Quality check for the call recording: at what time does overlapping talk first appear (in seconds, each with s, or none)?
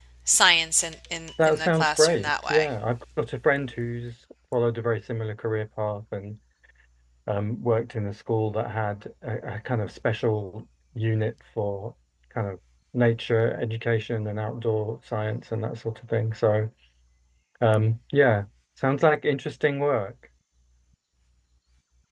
1.4 s